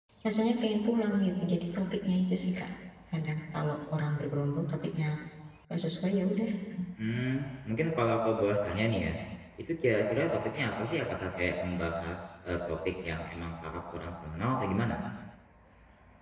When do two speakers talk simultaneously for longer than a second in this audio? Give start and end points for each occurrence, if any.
none

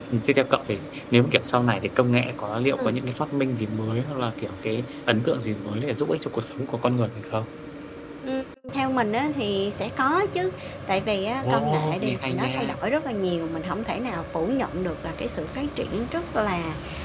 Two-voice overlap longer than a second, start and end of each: 11.4-12.8

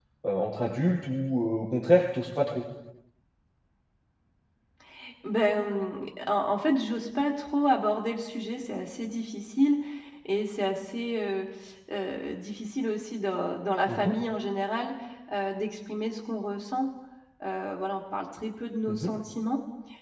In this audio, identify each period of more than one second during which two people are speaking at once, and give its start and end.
none

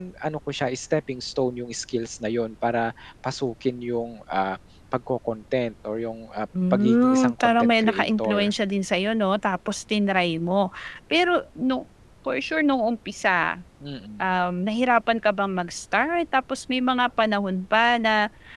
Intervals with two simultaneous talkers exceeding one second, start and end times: 6.7-8.5

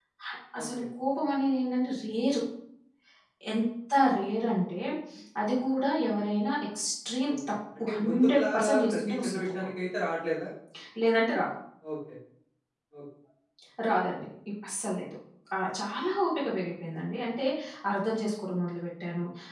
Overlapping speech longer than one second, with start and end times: 8.1-9.7

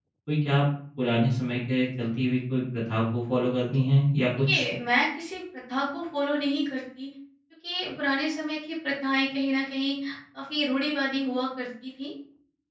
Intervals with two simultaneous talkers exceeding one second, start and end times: none

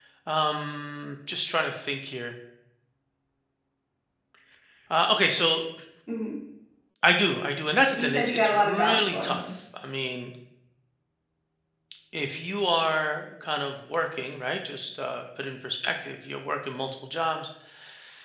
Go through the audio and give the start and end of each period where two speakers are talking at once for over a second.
7.9-9.5

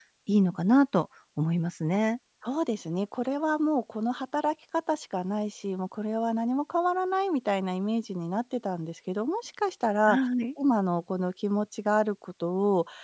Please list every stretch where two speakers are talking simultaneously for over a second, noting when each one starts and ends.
none

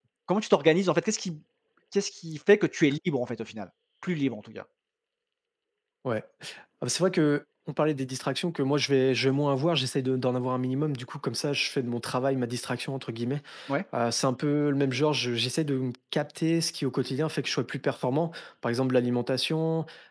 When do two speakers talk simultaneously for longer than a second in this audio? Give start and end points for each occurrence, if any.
none

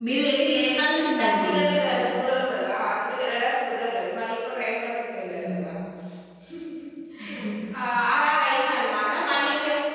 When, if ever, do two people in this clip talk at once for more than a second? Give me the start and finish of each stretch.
none

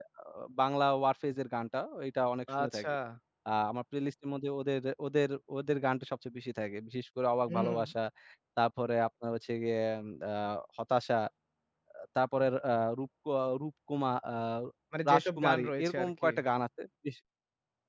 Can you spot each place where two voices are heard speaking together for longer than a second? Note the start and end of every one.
15.1-16.3

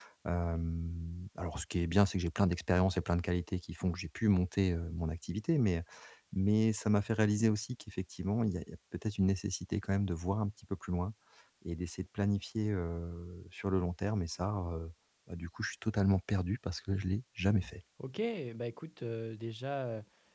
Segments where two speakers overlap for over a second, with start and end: none

